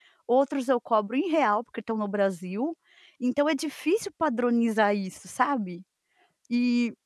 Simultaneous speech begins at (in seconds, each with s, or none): none